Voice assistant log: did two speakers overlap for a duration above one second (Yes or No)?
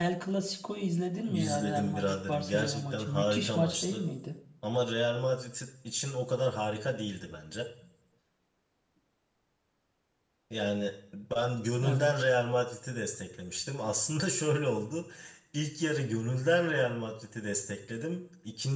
Yes